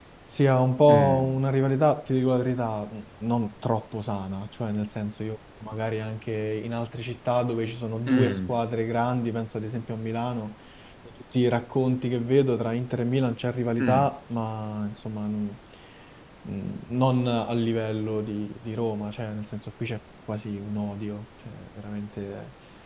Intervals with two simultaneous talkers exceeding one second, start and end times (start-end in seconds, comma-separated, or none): none